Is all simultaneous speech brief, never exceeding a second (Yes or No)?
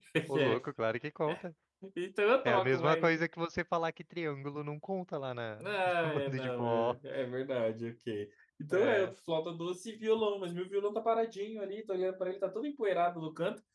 No